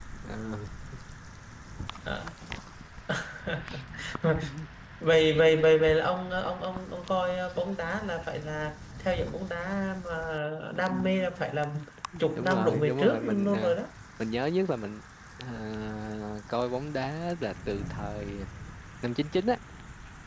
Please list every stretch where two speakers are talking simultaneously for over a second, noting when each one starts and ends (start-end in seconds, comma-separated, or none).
12.4-13.7